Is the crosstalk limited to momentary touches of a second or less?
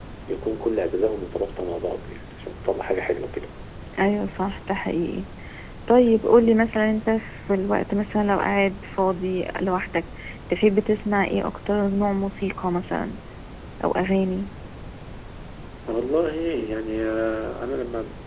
Yes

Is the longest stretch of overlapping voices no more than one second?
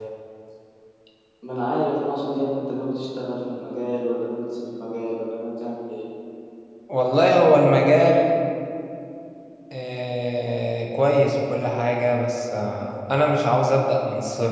Yes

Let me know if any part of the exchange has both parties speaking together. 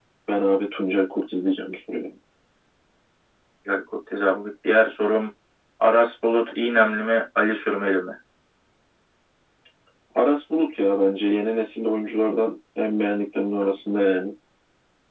No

